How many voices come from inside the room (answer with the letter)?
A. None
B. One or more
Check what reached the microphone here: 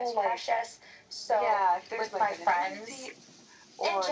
A